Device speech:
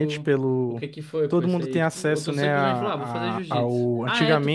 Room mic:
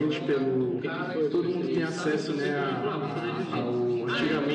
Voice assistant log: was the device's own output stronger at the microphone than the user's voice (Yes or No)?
Yes